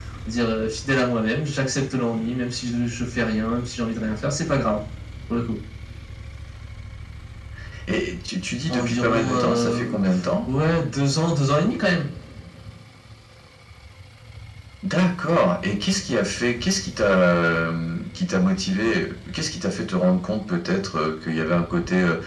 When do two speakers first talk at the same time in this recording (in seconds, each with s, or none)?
8.7 s